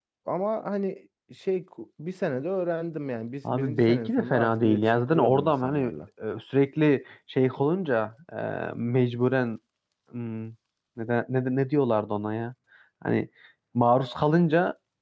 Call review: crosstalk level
present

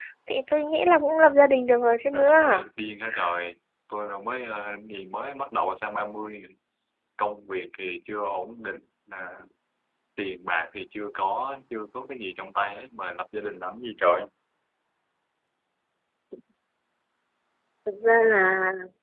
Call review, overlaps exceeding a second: none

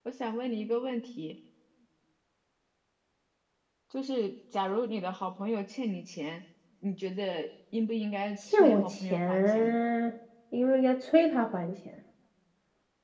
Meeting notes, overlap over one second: present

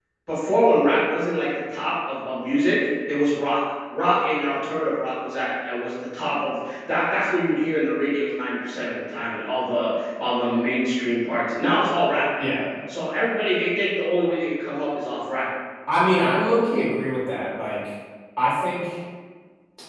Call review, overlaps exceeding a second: none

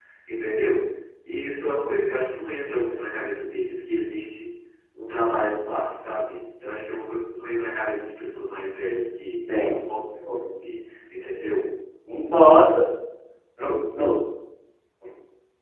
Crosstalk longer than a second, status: none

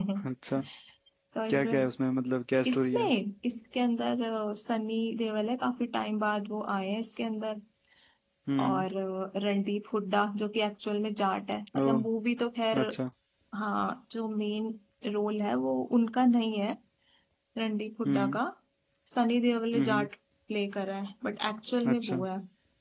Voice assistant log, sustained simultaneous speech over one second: none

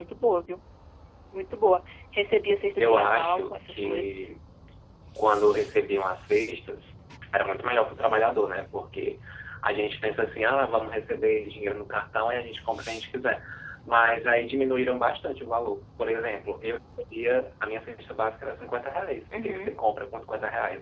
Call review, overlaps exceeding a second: present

